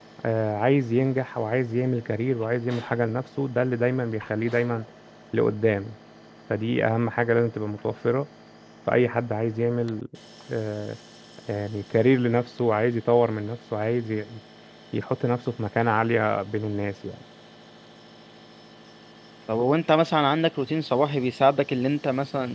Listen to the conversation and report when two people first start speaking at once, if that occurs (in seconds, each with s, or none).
none